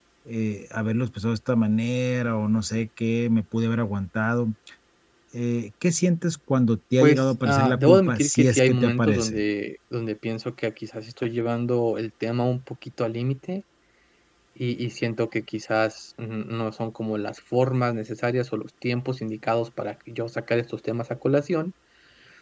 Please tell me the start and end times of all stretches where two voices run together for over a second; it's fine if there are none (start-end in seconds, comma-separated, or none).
7.0-9.4